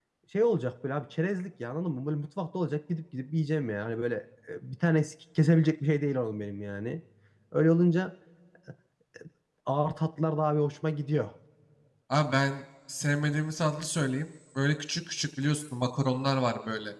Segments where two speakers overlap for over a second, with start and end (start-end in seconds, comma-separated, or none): none